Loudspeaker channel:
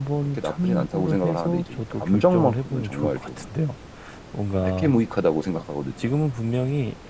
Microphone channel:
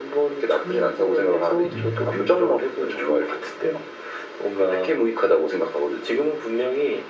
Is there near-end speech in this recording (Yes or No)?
Yes